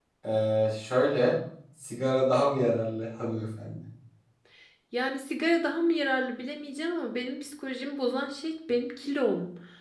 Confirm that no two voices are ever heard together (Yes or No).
Yes